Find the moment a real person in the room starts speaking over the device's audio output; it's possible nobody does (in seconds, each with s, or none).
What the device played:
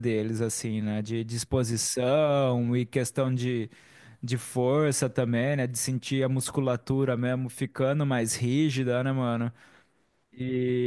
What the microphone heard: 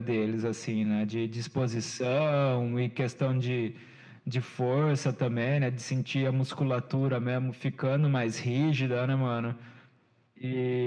none